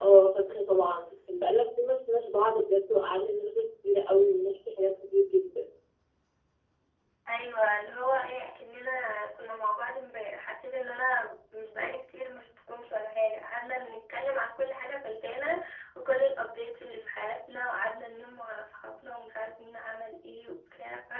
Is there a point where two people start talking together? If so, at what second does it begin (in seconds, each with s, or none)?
none